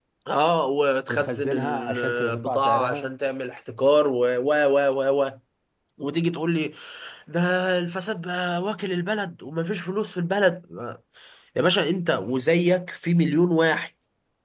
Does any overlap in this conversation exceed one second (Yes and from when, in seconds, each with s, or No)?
Yes, from 1.1 s